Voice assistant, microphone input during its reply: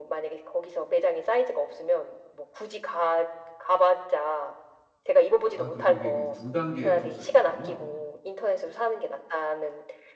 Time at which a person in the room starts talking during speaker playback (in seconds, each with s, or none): 5.4 s